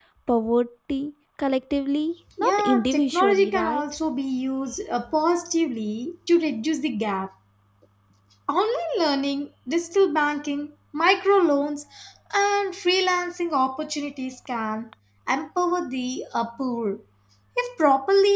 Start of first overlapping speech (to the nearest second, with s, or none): 2 s